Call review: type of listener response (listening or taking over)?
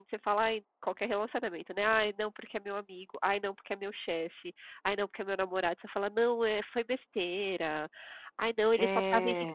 listening